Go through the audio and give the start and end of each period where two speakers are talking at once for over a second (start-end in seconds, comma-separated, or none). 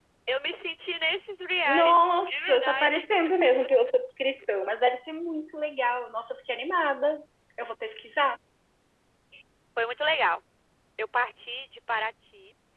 1.6-3.1